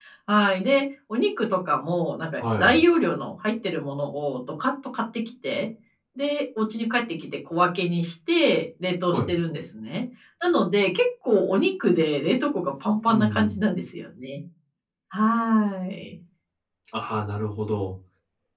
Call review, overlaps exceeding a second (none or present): none